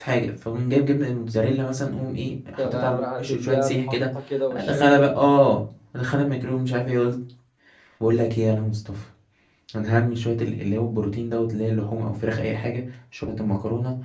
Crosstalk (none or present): present